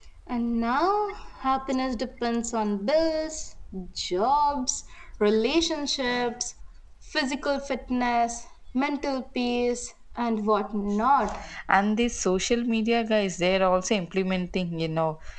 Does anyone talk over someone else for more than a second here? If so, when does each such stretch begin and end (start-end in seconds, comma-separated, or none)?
none